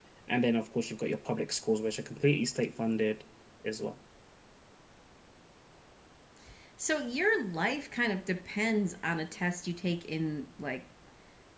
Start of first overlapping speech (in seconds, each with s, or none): none